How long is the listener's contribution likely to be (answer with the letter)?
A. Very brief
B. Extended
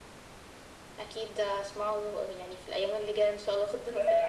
B